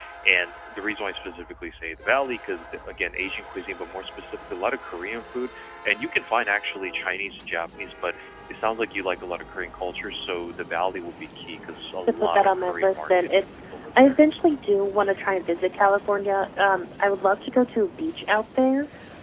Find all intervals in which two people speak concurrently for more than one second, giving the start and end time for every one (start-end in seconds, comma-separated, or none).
12.2-13.4